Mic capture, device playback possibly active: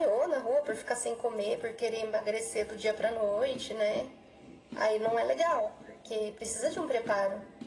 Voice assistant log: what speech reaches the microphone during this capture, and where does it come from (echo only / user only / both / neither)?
echo only